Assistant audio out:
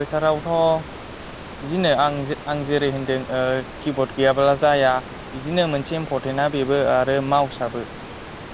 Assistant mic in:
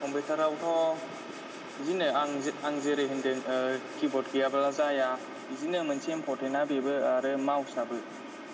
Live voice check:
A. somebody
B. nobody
B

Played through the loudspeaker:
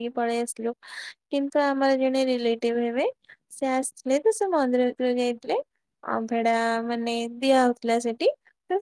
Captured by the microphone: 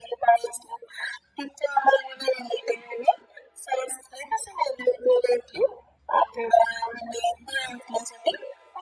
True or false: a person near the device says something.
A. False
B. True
A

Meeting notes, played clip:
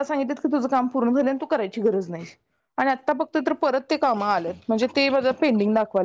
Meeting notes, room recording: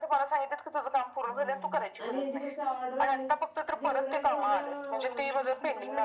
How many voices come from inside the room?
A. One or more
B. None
A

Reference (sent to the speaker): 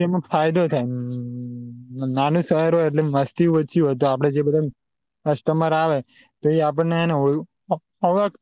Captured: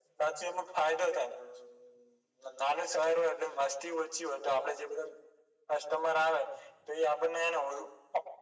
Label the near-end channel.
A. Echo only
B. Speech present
A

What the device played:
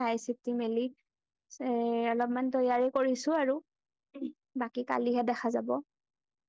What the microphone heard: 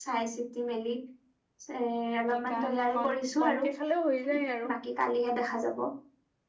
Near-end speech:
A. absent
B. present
B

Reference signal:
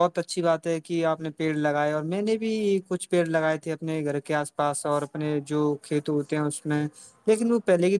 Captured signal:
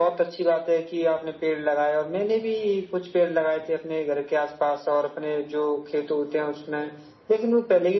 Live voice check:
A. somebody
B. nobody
B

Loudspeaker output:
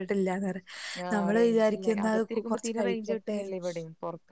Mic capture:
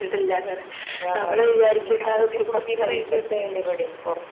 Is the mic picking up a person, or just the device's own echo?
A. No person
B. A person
A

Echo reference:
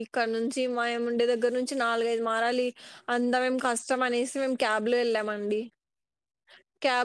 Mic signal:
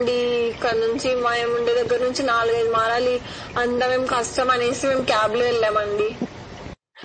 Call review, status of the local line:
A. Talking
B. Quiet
B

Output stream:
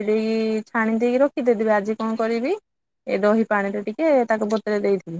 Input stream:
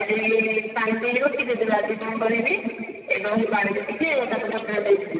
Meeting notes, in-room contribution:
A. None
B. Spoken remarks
A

